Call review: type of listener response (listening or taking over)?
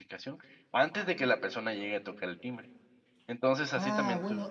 taking over